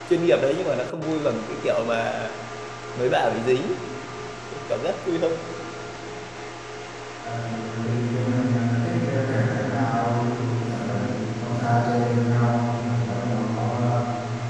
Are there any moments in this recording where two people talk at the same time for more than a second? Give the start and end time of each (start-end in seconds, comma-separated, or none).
none